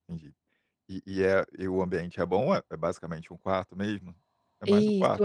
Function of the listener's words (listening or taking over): taking over